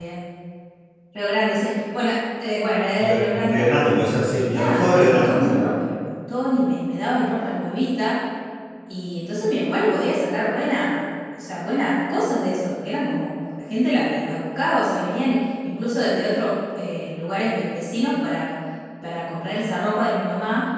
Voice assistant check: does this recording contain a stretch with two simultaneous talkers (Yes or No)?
Yes